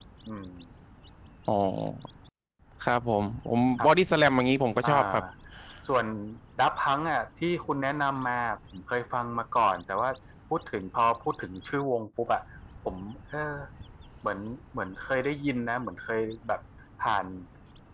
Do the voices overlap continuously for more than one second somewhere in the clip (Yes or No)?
No